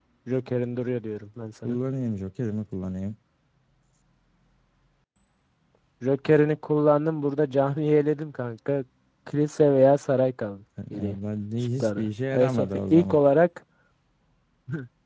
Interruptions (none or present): present